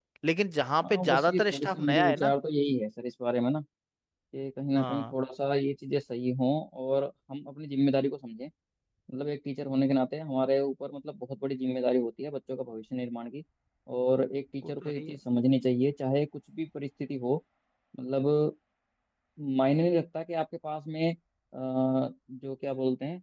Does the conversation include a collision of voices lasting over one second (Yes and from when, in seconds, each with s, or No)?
Yes, from 0.8 s